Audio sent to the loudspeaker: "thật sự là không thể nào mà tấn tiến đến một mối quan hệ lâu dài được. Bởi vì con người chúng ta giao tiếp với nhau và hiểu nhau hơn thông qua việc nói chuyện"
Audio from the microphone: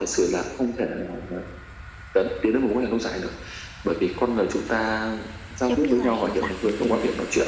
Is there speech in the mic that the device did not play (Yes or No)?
Yes